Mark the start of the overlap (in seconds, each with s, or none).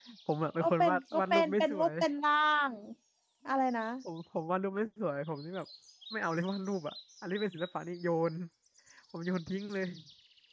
0.6 s